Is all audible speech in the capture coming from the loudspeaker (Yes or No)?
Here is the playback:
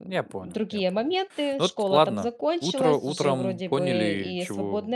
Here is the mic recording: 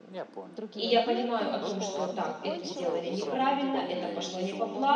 No